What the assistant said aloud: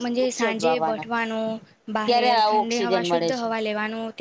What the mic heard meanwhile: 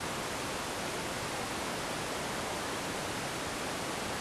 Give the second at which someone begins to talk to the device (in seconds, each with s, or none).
none